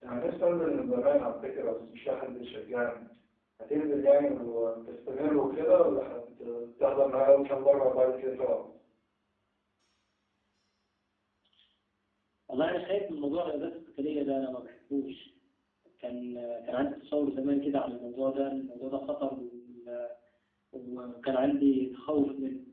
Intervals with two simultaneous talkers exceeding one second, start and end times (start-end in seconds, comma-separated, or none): none